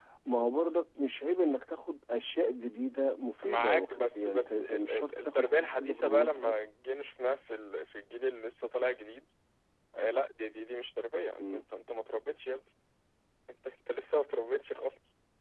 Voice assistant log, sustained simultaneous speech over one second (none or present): present